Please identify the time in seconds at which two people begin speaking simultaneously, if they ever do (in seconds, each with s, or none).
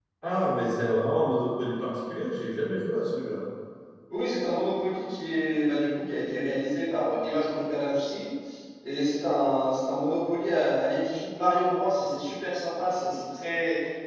none